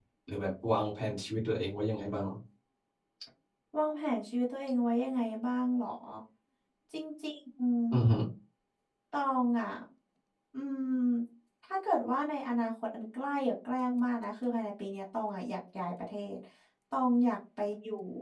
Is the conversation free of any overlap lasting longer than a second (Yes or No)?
Yes